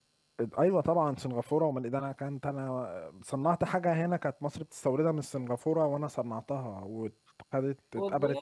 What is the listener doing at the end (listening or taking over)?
listening